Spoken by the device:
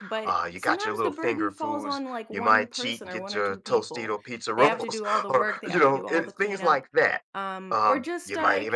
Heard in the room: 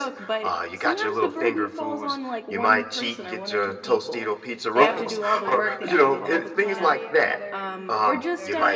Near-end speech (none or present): present